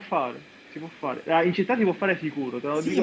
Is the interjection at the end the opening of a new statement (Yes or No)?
Yes